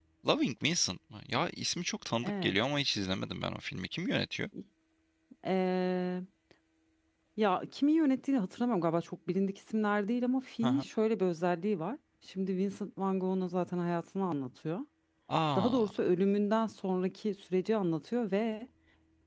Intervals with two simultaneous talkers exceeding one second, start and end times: none

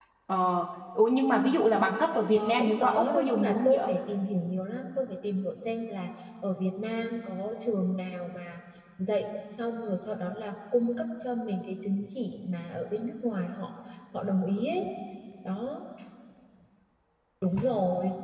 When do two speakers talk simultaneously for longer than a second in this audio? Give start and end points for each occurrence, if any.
2.3-3.9

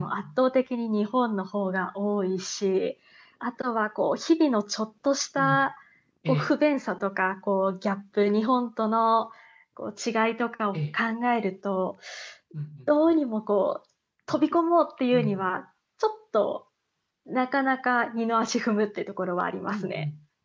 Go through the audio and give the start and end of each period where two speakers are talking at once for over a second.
none

